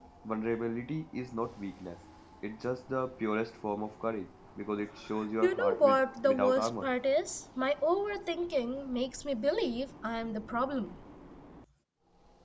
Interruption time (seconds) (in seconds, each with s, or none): 5.4 s